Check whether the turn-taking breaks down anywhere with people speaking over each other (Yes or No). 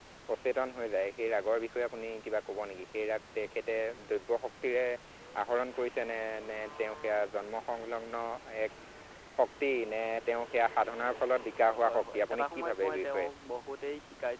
Yes